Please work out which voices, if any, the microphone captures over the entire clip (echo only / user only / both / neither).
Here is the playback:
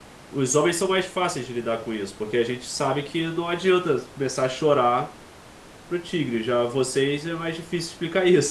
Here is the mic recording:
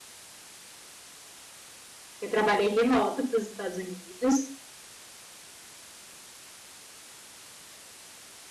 user only